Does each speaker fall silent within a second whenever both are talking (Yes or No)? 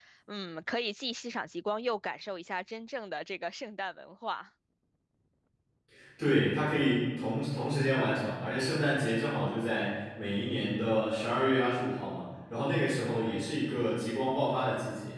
Yes